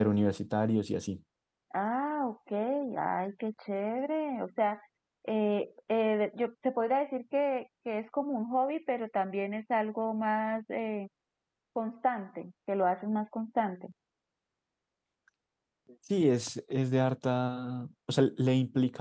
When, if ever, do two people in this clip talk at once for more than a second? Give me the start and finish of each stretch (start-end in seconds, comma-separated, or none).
none